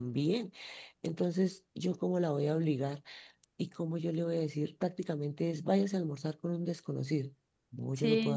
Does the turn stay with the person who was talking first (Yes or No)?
No